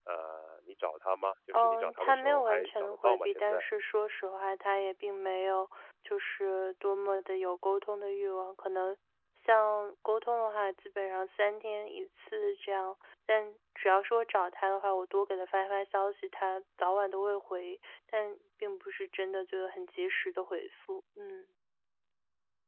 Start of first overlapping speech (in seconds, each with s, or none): 1.5 s